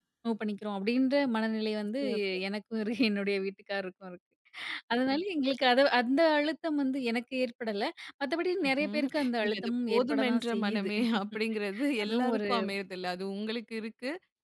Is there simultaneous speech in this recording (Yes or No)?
Yes